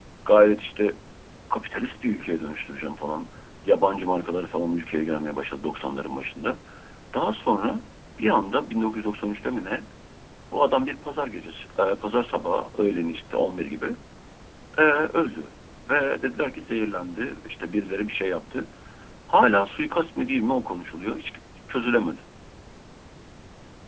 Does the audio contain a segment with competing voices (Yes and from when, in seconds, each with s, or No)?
No